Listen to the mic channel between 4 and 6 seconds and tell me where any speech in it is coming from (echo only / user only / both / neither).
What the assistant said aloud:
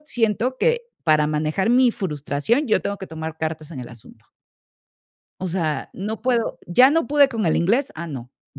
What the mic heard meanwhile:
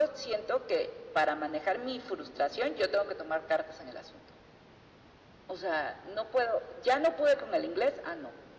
echo only